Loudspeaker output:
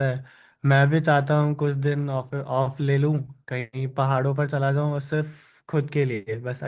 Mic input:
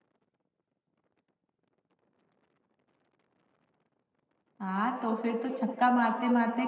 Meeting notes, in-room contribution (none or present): present